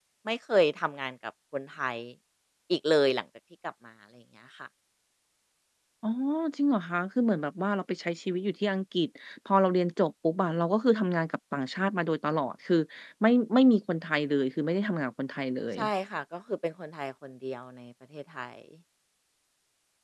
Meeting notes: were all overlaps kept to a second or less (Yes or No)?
Yes